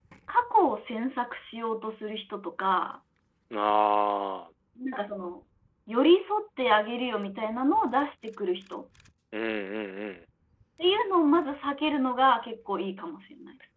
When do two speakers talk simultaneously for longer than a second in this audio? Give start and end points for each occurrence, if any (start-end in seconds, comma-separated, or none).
none